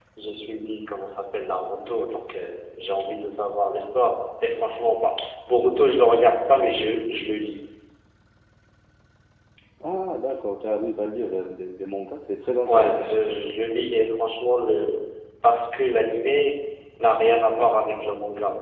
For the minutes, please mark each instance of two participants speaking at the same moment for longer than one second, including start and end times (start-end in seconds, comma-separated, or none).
none